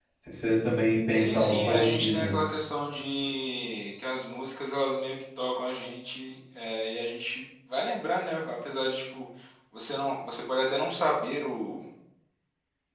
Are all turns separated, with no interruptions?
No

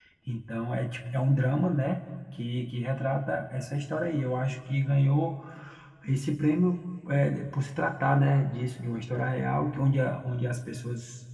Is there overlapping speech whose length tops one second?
No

